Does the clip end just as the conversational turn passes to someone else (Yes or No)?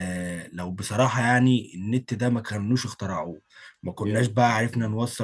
No